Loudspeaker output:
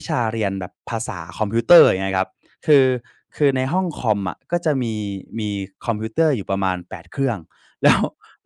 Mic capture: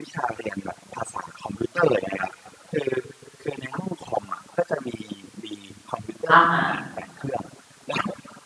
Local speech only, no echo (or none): อะฮะ